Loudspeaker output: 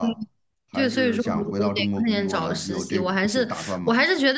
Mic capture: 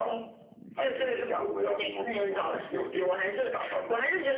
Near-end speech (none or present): none